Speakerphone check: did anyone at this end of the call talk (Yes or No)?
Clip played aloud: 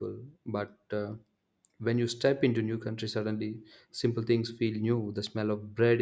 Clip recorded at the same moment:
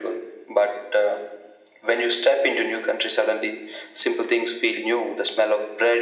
No